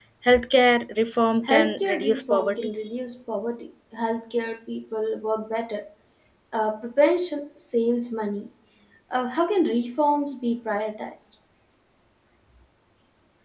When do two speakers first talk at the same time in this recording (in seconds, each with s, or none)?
1.4 s